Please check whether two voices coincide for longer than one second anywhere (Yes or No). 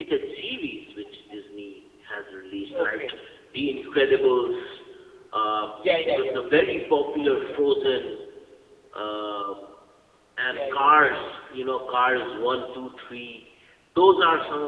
No